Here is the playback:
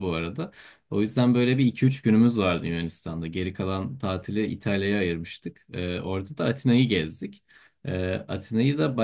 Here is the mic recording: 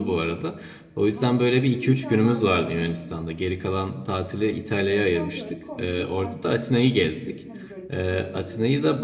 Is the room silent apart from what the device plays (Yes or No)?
No